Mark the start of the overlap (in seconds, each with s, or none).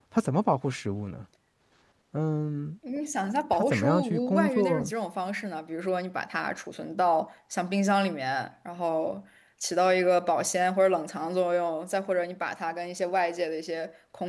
3.5 s